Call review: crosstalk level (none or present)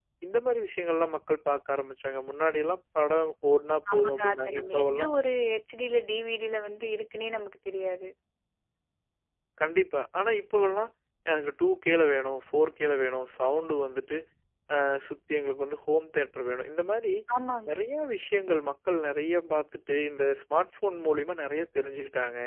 present